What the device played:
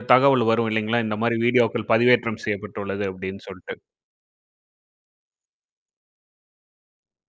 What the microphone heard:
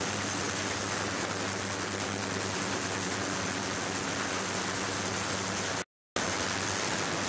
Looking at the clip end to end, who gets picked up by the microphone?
neither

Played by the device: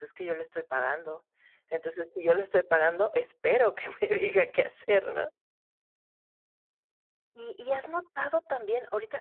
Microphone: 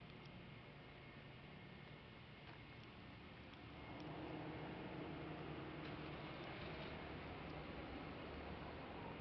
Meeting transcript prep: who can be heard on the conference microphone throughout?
neither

